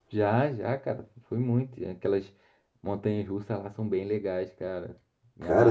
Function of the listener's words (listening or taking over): taking over